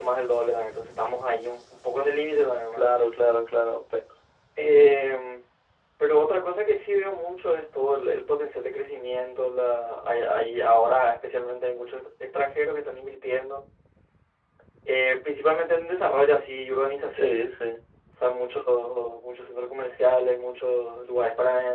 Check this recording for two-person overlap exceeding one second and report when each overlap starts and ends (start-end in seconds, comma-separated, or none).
none